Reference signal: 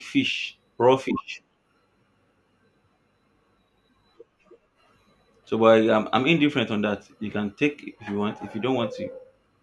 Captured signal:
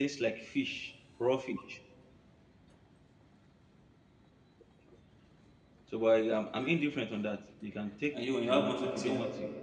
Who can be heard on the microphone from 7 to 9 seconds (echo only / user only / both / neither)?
both